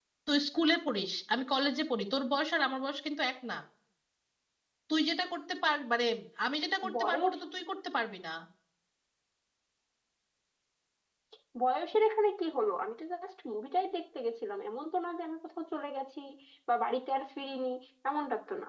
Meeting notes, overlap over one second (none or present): none